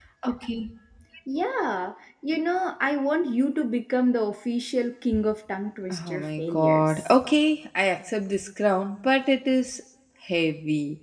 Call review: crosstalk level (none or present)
present